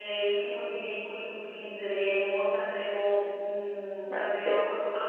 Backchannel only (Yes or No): Yes